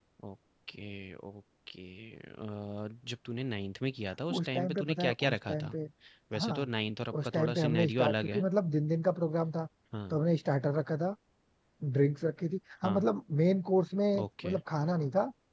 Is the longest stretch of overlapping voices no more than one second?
No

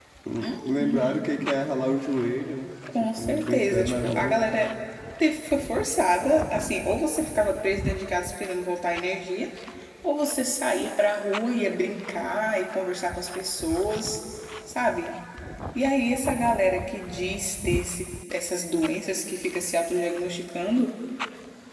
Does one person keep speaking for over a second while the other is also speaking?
Yes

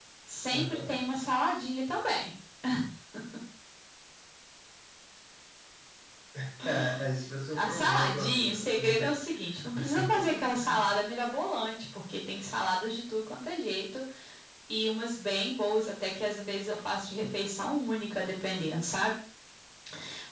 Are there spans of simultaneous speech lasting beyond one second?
Yes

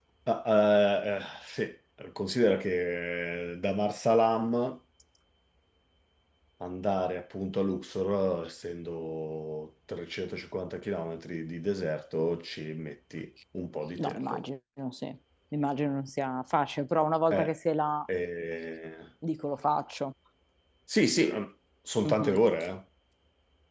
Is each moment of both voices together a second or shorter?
Yes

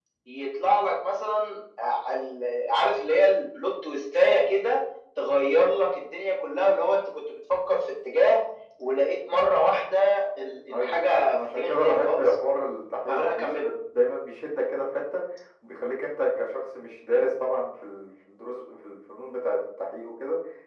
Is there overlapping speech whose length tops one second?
Yes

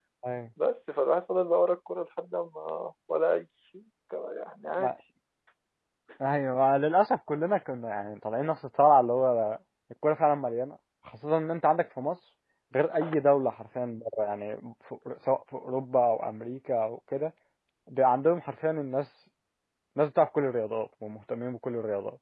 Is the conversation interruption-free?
Yes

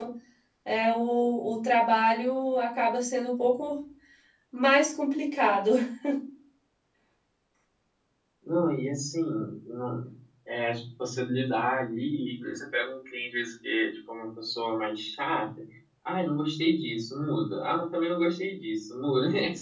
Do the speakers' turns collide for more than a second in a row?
No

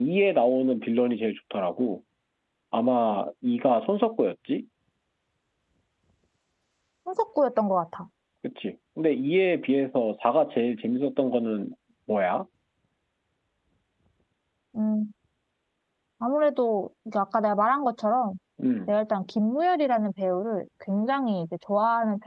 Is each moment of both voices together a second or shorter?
Yes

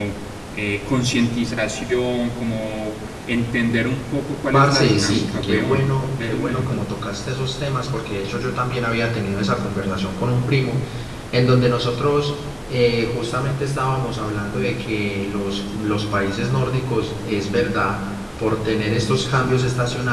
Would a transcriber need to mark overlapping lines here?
Yes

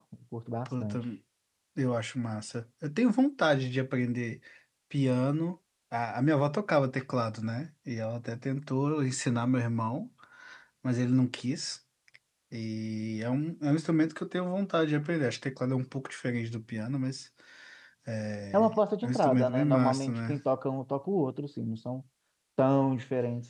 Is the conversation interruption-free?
No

